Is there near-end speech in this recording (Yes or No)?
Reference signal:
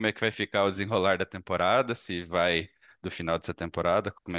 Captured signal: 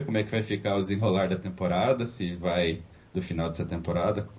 No